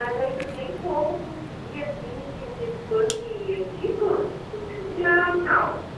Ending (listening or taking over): taking over